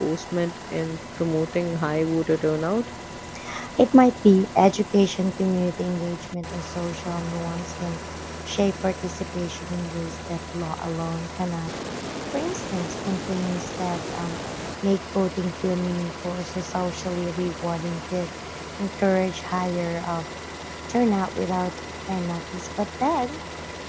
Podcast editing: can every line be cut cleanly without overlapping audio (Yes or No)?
Yes